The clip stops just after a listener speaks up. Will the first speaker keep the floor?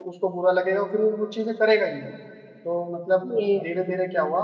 Yes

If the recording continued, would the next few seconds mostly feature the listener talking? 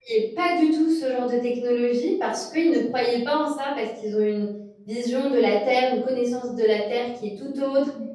No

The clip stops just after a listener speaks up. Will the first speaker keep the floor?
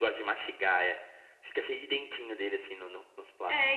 No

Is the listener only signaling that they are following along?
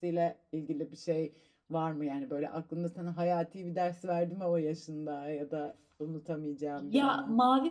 No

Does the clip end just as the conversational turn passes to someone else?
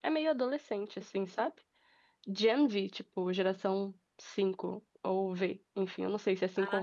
Yes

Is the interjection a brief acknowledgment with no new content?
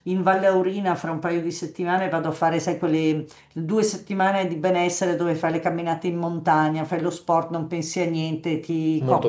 Yes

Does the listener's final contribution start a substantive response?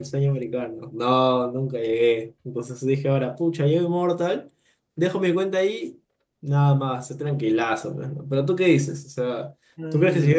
Yes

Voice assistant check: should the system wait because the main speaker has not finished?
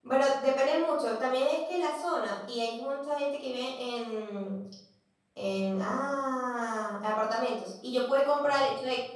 Yes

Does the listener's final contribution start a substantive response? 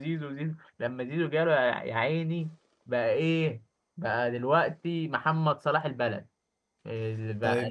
Yes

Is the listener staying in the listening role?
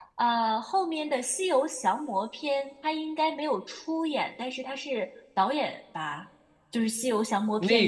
No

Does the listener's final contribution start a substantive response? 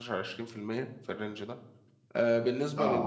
No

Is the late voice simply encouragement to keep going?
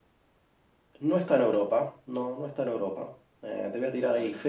Yes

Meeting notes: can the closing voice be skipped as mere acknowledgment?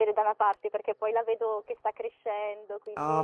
No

